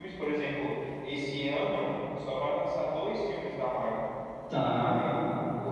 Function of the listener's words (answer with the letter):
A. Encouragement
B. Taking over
A